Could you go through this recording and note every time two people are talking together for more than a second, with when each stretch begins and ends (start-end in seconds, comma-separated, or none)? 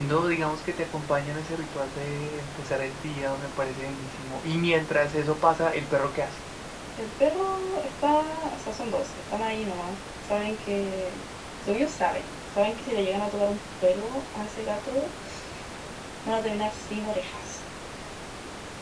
none